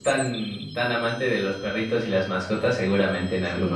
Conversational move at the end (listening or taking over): taking over